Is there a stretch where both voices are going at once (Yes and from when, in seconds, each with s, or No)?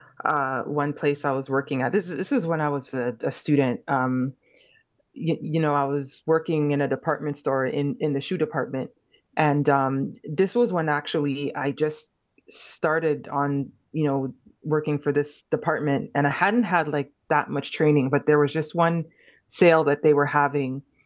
No